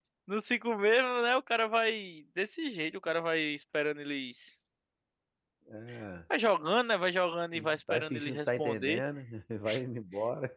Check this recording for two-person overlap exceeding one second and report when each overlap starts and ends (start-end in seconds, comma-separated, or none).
7.5-9.0